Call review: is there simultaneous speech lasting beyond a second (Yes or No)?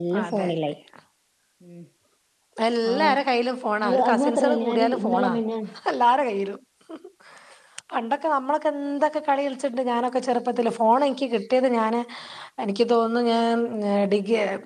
Yes